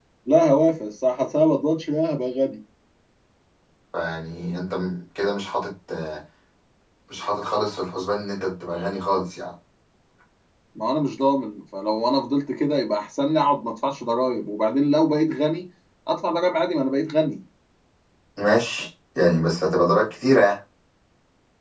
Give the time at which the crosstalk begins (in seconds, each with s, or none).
none